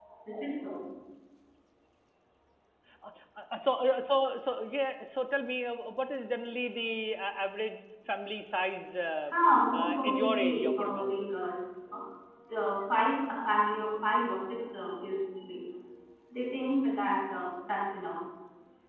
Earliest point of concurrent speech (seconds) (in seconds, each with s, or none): 9.7 s